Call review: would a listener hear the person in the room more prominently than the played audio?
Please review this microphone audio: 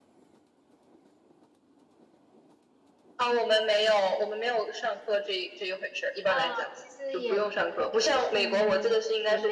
No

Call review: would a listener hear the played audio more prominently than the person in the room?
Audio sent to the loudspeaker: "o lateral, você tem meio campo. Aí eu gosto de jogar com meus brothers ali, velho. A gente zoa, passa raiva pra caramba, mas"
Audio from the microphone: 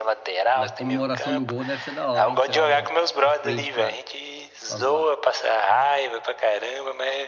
Yes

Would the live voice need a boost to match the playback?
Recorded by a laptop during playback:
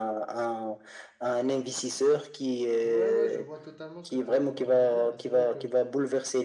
Yes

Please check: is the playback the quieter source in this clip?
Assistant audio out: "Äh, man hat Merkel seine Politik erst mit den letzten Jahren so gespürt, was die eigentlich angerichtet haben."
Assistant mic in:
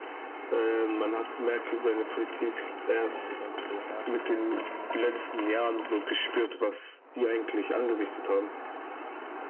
No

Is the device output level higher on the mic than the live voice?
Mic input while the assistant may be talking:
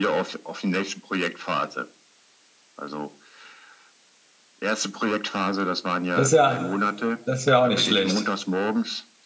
No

